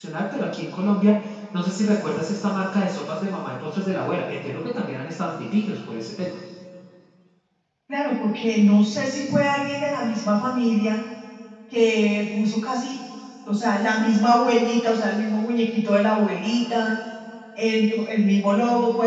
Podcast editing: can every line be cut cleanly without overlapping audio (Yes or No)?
Yes